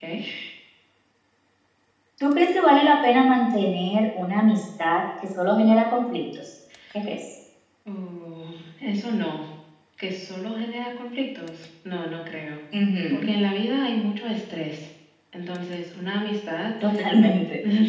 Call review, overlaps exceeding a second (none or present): none